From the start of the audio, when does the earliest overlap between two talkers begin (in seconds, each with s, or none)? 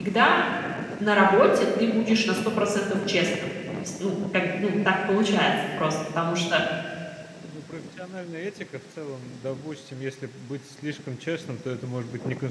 none